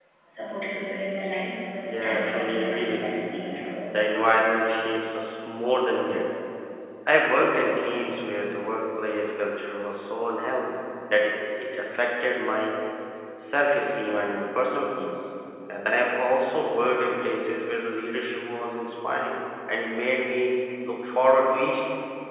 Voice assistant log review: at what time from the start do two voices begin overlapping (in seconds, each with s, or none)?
1.8 s